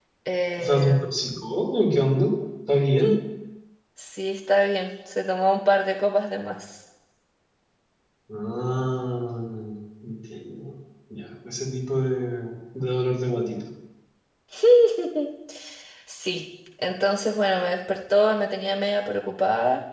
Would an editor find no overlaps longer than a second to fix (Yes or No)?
Yes